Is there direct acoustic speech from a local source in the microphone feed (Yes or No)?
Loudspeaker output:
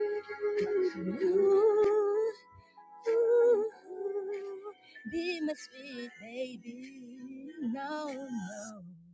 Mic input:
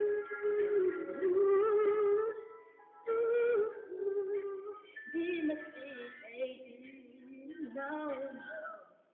No